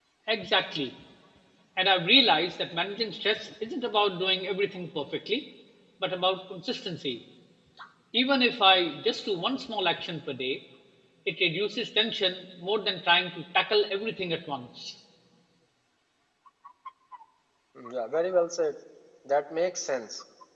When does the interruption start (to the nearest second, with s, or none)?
none